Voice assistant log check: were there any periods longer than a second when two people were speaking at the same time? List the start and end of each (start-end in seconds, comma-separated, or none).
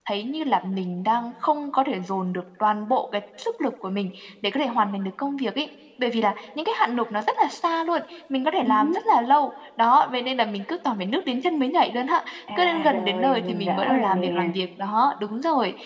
12.6-14.5